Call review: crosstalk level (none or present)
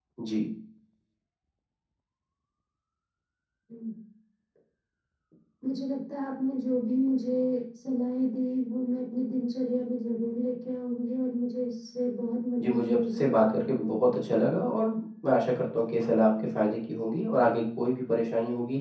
present